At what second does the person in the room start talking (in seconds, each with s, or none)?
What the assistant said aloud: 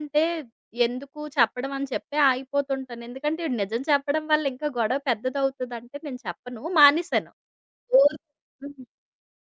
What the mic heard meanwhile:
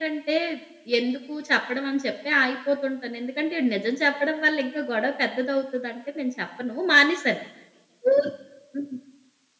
none